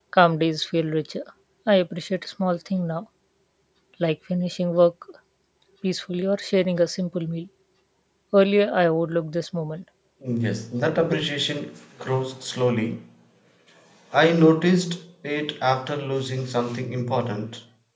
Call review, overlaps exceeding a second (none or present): none